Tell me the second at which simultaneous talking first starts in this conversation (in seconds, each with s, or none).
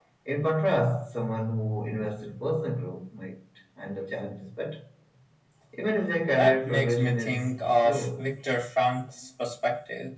6.4 s